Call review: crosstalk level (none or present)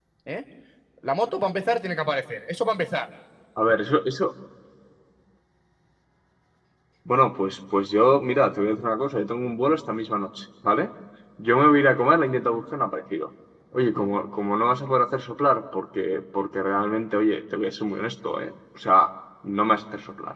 none